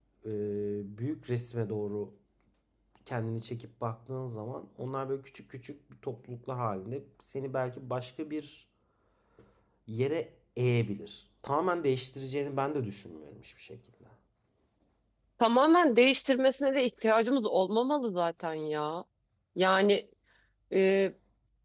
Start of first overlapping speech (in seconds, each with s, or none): none